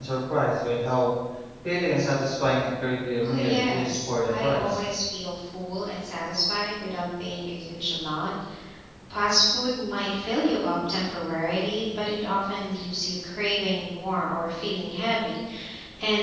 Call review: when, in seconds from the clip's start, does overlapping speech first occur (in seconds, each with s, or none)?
3.2 s